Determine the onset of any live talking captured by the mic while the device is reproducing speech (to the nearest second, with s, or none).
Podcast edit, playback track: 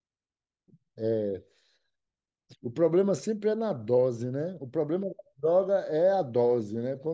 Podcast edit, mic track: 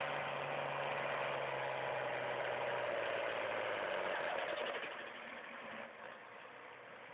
none